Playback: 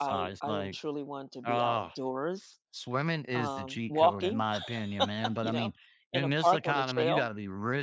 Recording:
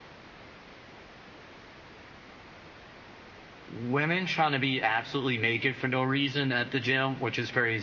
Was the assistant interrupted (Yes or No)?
Yes